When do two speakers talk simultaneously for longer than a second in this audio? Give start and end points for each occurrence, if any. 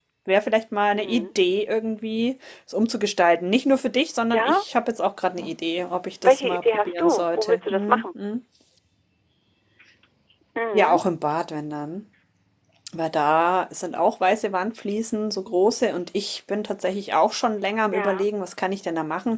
6.2-8.0

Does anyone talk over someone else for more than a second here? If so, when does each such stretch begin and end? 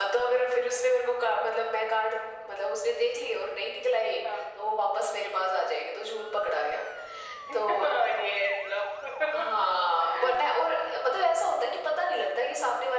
none

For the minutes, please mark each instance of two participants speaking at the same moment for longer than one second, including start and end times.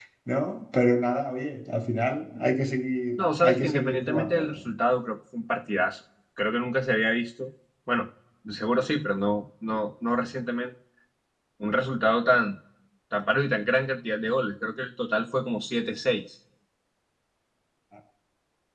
3.2-4.7

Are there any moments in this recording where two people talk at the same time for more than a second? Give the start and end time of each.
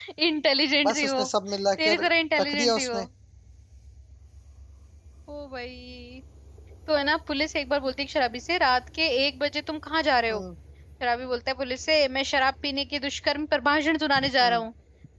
1.8-3.0

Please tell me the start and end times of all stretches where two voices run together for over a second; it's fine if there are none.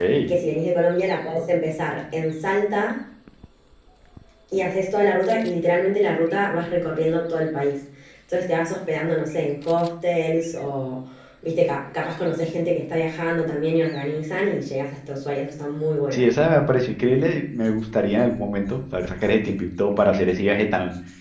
none

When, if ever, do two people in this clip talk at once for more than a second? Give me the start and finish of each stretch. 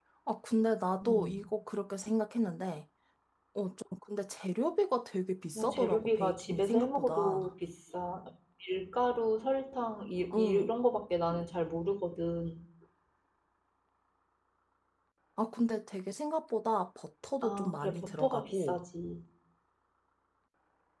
5.5-7.5, 17.4-18.8

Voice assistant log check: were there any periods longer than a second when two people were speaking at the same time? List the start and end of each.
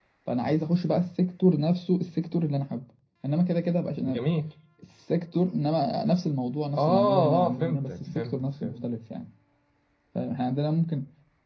6.8-8.8

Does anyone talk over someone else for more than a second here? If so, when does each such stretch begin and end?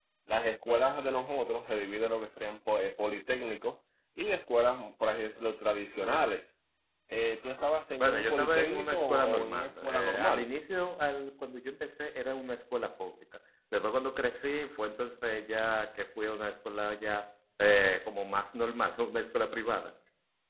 8.0-10.5

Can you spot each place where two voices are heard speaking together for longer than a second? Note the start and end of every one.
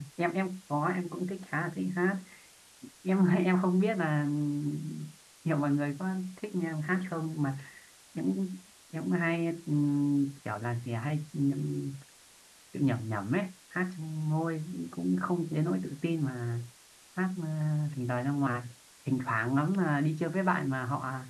none

